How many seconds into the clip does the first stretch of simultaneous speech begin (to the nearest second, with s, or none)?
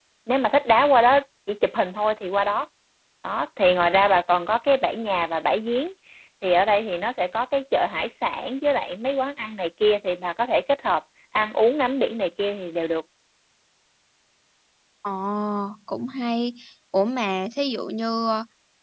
none